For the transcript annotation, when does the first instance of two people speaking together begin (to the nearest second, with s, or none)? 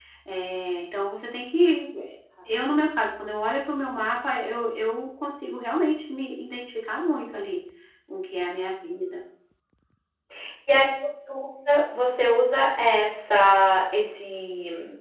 none